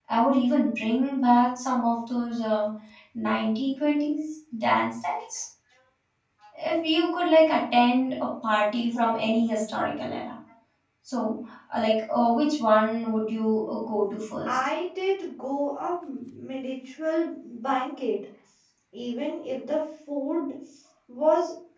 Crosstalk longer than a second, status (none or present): none